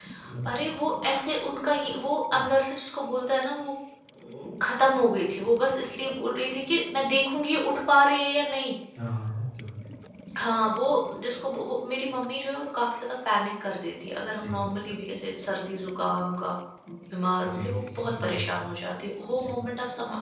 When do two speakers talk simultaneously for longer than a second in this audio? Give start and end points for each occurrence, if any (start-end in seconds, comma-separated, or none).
17.4-18.6